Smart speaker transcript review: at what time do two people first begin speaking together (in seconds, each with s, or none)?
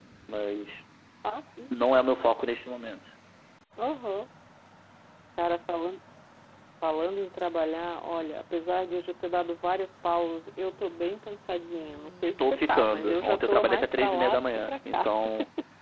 12.4 s